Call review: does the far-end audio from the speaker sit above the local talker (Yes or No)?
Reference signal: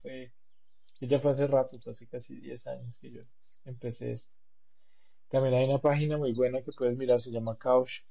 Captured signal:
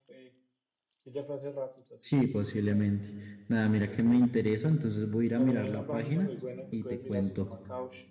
No